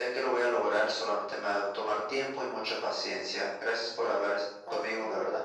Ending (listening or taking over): taking over